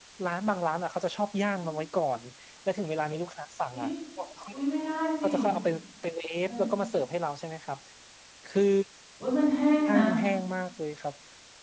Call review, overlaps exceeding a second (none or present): none